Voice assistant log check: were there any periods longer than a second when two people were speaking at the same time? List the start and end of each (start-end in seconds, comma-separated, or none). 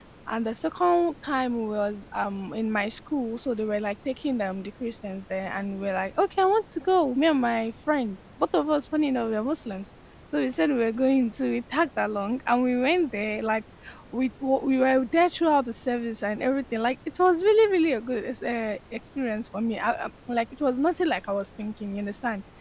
none